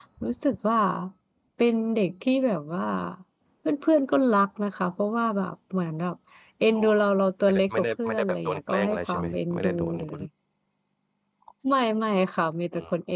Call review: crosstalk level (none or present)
present